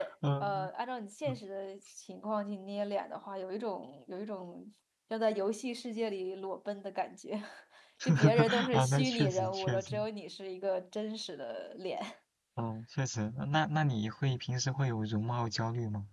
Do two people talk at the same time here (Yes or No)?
Yes